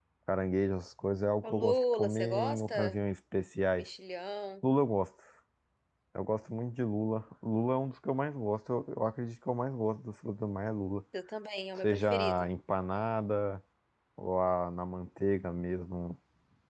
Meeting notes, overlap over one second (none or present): present